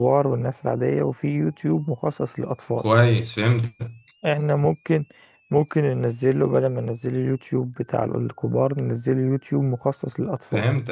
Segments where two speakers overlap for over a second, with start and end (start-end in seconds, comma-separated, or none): none